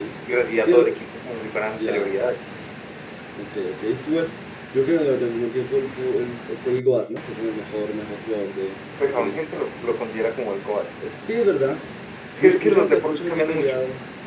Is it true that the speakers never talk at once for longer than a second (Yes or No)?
No